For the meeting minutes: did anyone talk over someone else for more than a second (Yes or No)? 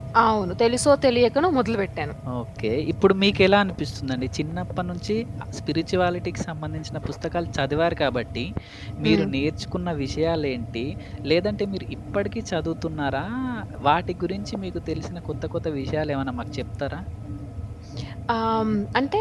No